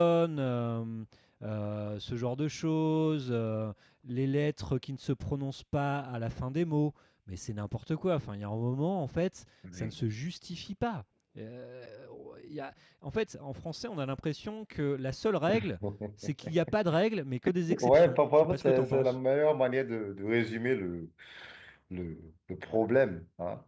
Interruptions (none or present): present